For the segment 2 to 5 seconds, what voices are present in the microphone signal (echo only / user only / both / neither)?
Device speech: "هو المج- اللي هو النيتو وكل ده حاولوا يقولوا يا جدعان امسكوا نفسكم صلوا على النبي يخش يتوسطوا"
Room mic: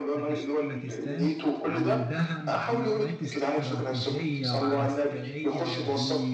both